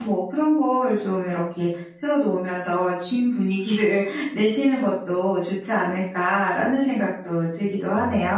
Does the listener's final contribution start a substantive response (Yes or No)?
Yes